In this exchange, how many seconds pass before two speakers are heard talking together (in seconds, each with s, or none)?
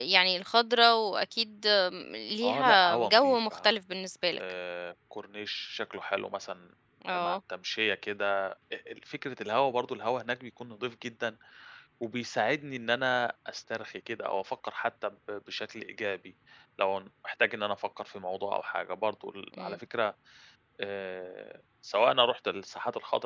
2.4 s